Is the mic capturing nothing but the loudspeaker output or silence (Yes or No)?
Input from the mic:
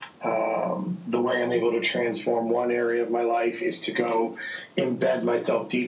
Yes